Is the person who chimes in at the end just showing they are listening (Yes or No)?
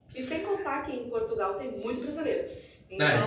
Yes